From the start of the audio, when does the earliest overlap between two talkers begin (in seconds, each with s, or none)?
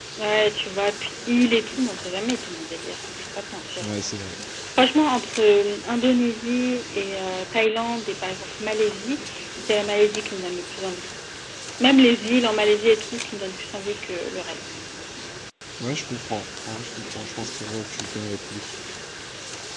none